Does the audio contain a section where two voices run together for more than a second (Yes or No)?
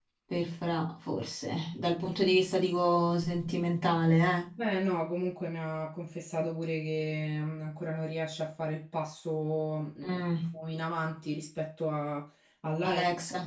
No